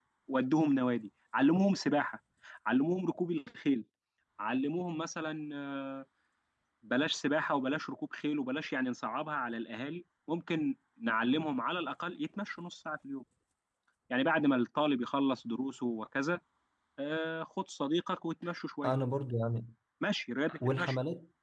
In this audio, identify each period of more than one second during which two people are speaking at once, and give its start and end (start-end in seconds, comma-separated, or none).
none